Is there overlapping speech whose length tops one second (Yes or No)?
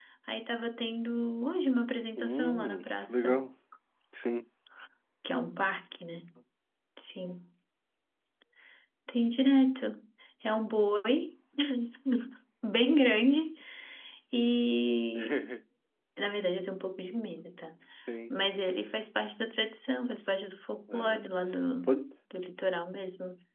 Yes